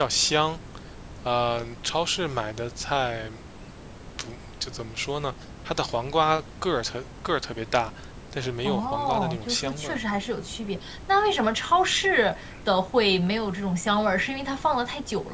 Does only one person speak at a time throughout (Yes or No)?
No